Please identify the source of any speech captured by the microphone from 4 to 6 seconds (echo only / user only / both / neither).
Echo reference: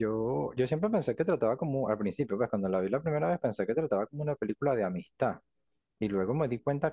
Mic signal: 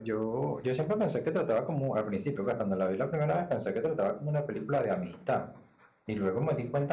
echo only